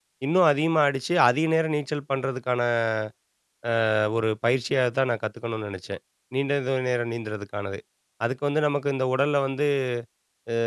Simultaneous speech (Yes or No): No